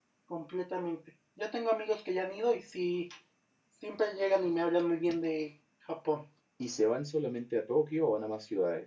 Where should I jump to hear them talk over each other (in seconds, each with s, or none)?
none